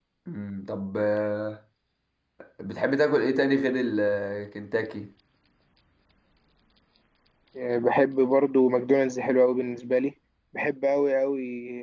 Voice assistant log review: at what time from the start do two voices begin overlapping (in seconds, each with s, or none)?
none